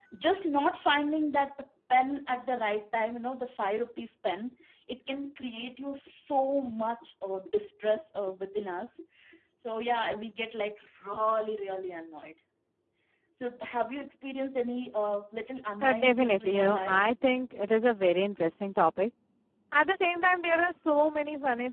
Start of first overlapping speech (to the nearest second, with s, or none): 16 s